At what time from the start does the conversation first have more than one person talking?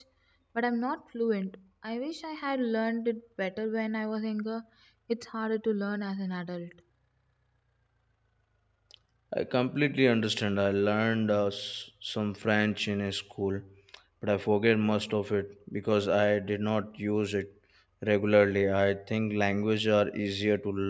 none

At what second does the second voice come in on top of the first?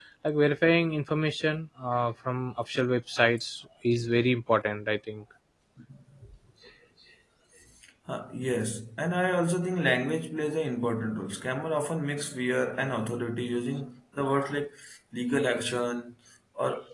none

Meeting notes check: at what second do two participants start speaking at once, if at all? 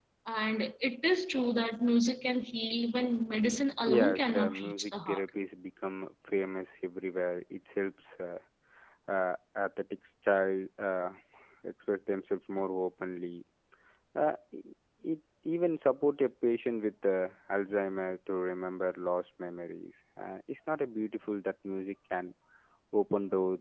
4 s

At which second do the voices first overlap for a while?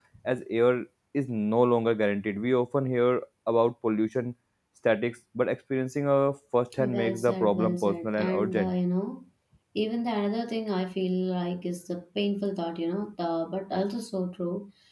7 s

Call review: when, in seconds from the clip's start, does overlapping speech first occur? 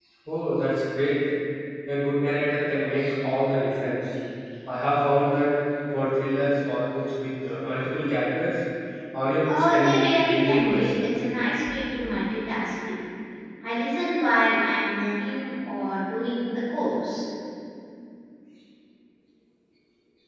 9 s

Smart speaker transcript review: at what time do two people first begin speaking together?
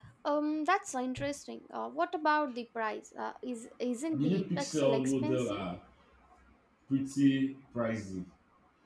4 s

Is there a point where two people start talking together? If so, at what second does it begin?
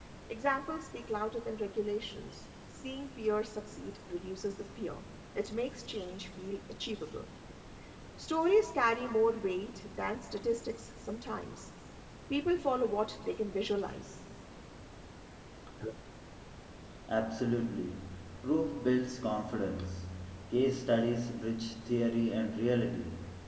none

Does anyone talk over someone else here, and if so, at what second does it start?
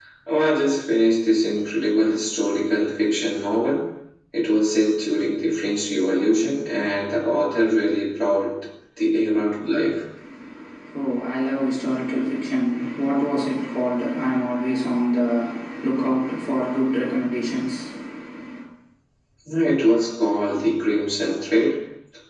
none

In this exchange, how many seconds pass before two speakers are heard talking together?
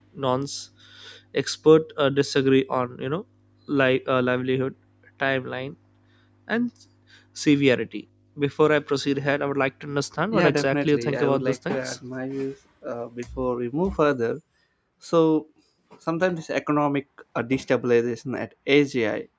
10 s

